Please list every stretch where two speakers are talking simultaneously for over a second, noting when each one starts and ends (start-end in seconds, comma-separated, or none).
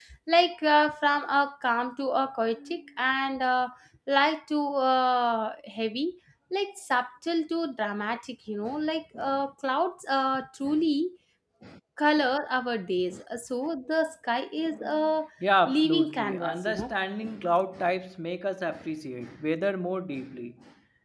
15.7-16.9